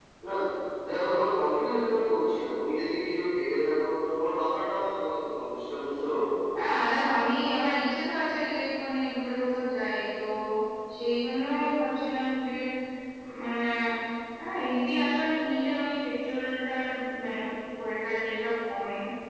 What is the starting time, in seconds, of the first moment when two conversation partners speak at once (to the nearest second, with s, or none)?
none